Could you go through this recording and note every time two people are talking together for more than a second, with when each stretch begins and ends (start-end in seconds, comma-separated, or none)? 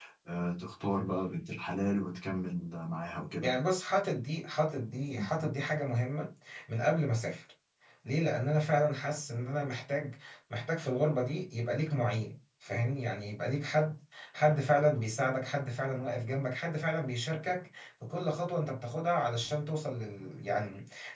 none